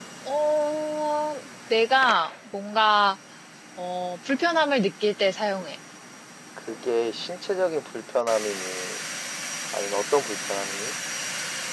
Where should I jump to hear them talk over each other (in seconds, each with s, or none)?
none